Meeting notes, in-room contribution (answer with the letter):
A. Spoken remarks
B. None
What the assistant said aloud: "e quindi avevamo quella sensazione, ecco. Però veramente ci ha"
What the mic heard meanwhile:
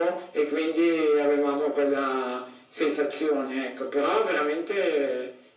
B